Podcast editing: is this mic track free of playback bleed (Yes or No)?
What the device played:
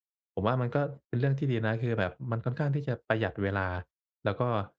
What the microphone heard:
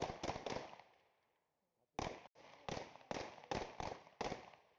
Yes